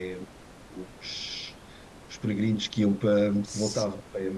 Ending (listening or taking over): listening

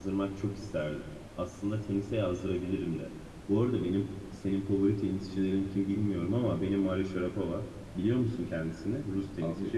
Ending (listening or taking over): taking over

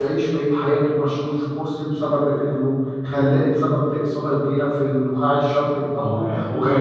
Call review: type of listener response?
taking over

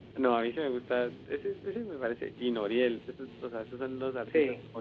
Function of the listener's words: listening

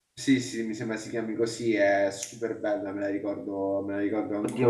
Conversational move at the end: taking over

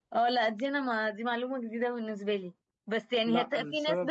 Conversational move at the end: listening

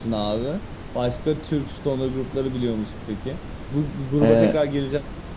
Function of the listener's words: listening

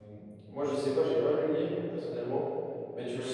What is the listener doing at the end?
listening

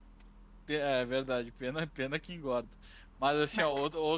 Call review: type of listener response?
listening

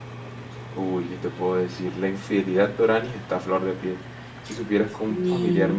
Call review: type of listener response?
listening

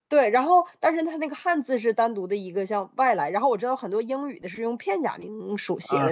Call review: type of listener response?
taking over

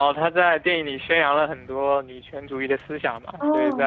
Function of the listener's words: taking over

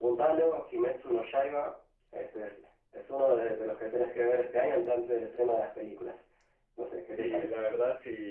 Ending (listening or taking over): taking over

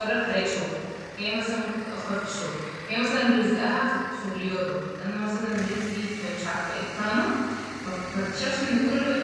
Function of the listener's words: listening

